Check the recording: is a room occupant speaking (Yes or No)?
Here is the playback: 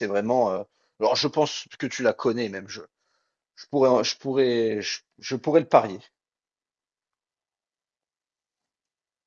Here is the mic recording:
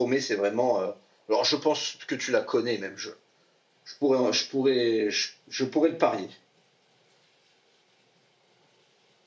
No